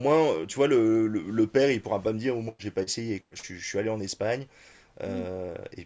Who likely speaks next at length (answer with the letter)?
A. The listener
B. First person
B